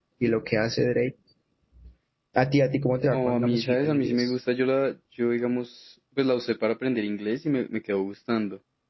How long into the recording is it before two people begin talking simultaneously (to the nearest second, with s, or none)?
3 s